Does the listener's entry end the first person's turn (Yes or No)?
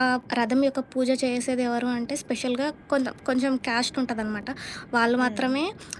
No